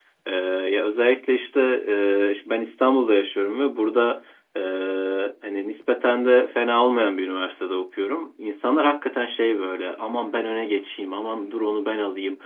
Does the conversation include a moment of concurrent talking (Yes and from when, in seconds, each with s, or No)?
No